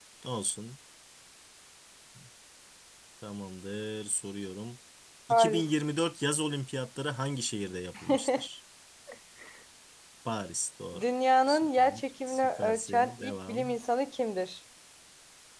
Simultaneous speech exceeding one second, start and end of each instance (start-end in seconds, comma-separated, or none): 11.5-13.8